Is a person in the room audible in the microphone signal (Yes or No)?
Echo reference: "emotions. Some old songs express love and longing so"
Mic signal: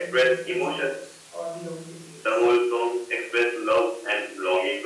Yes